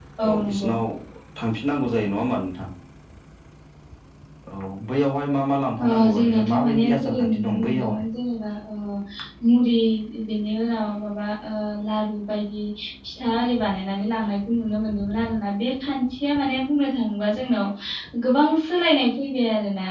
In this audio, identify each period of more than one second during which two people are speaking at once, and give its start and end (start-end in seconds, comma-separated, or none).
5.8-8.1